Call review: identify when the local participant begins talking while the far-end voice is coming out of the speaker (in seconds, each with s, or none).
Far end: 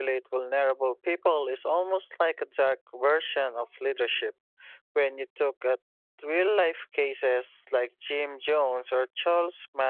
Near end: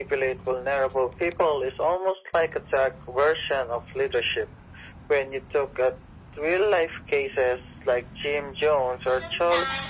9.0 s